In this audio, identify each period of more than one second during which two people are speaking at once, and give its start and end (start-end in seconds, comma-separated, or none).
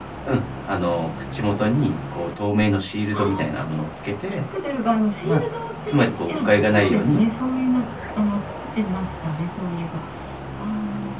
5.9-7.2